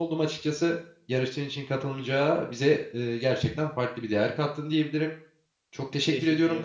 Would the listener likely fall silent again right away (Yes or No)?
Yes